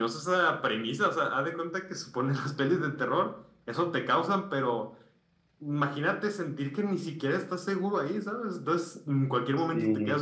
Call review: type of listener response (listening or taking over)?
listening